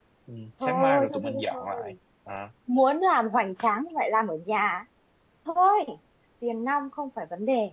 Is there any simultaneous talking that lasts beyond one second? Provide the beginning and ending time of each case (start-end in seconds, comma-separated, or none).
0.6-1.9